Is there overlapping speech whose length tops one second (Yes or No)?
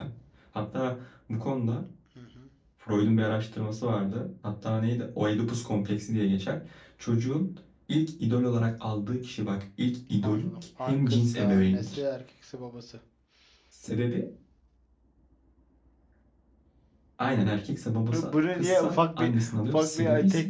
Yes